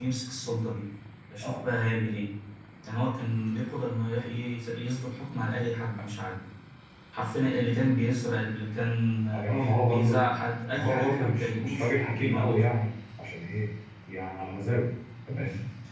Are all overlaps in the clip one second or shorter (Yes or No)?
No